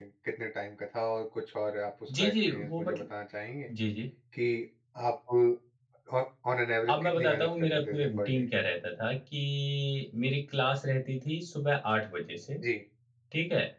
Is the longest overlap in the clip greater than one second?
Yes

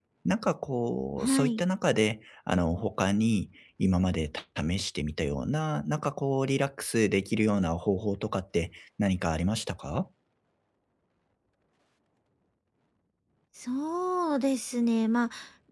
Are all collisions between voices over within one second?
Yes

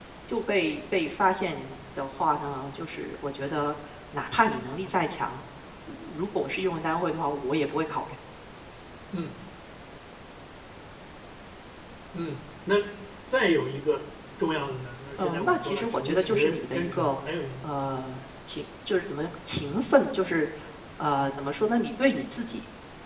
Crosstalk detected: Yes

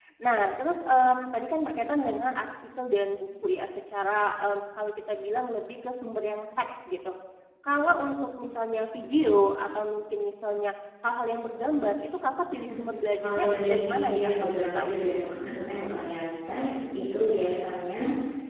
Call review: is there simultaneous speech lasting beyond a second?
Yes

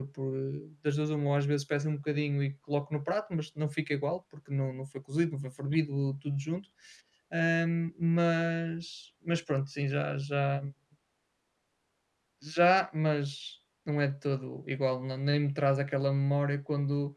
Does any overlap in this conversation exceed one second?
No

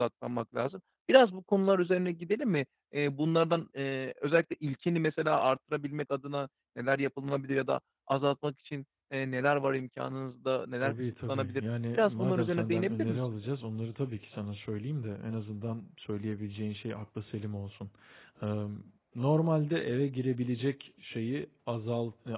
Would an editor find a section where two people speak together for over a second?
Yes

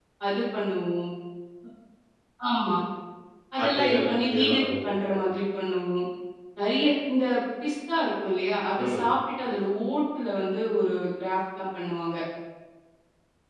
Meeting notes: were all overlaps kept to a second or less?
No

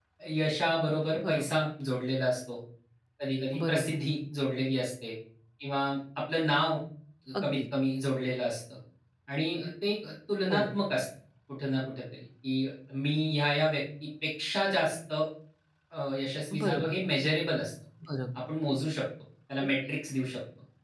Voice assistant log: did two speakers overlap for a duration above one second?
No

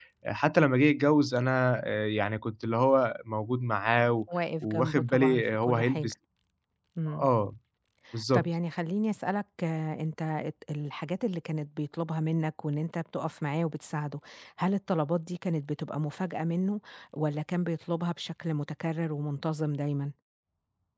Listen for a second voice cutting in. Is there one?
Yes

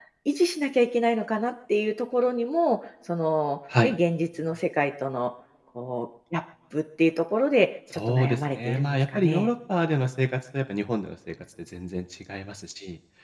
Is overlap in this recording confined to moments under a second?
No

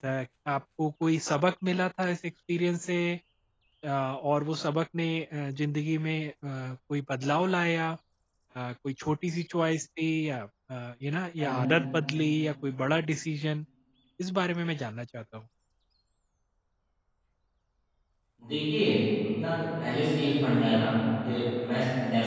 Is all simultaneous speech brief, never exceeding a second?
Yes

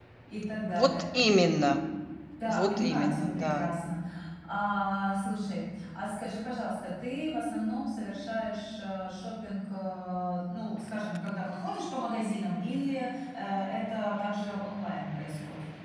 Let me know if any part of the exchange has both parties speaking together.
Yes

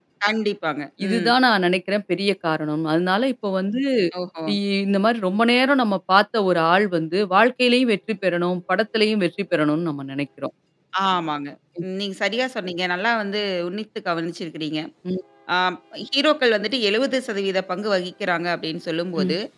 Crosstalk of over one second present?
No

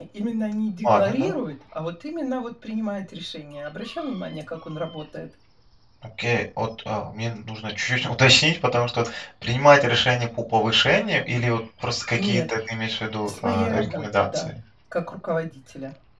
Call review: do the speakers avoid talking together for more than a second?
No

